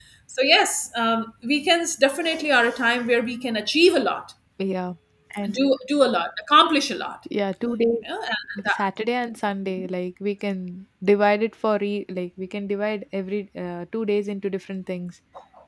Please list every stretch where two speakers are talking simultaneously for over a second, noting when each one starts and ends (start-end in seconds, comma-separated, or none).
none